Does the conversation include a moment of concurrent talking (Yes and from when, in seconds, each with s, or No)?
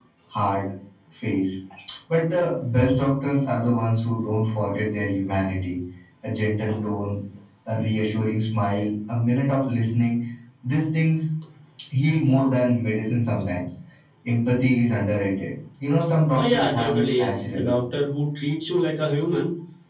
Yes, from 16.3 s